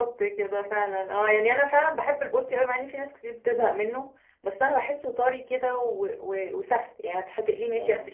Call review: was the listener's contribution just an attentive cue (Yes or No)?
Yes